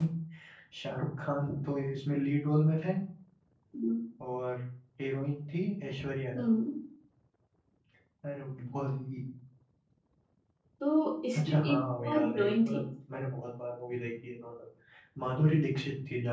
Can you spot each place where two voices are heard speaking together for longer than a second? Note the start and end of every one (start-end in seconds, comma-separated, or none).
11.3-12.8